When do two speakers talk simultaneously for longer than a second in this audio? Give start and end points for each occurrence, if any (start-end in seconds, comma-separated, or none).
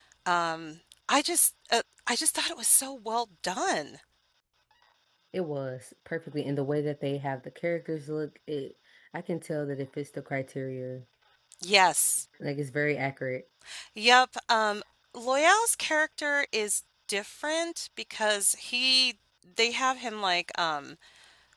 none